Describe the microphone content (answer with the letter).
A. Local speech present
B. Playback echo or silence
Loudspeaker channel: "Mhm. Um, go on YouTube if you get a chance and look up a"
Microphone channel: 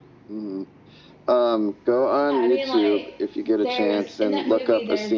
A